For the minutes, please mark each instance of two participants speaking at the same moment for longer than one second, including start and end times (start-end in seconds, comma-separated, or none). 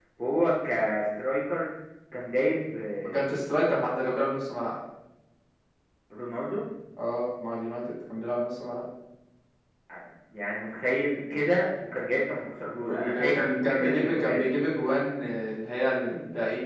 12.9-14.4